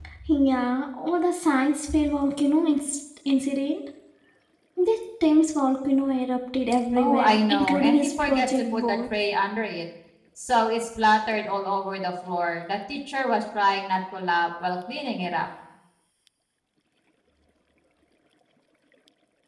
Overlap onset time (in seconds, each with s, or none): 7.0 s